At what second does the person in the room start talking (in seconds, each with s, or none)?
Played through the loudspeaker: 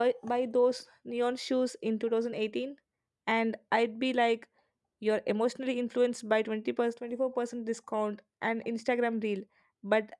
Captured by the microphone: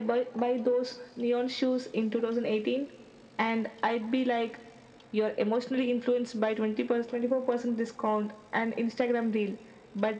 none